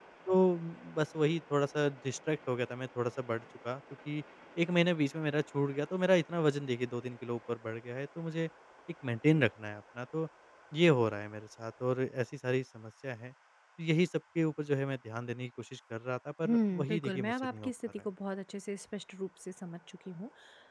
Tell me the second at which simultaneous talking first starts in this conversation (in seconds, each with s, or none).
16.4 s